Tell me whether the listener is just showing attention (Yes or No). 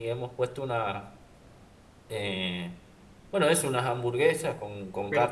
No